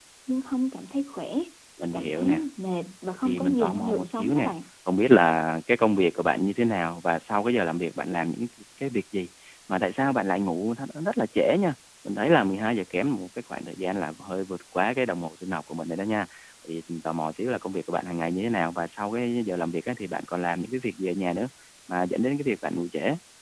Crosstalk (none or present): present